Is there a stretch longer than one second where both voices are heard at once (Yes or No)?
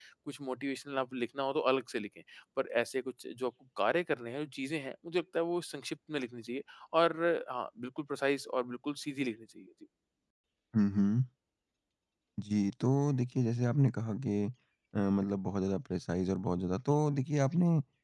No